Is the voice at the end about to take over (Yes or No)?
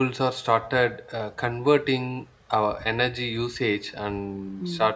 No